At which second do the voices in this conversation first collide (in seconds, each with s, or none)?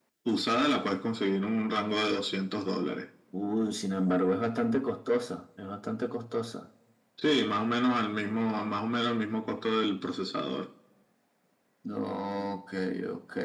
none